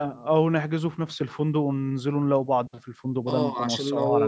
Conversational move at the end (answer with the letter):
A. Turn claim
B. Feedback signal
A